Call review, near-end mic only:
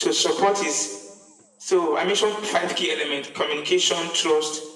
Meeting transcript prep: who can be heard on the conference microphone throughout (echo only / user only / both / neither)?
echo only